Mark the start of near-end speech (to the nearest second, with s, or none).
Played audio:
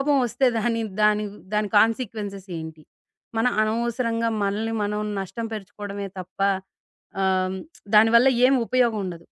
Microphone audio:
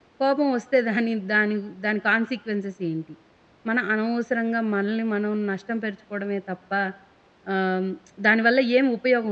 none